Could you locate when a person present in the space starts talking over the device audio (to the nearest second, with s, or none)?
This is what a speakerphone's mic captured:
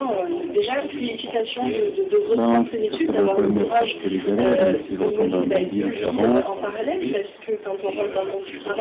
2 s